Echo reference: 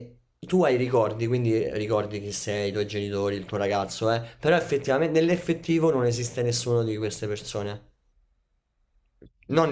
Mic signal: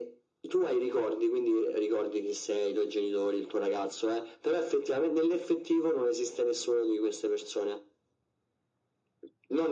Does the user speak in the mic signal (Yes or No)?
No